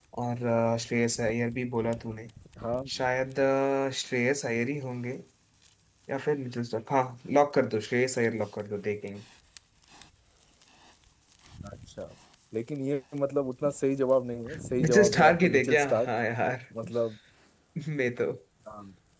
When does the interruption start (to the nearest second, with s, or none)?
15 s